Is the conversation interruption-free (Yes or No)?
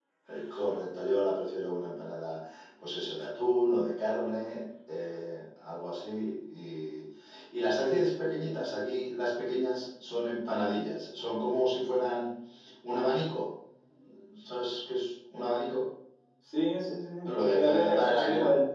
No